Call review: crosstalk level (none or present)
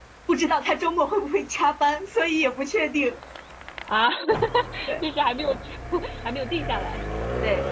none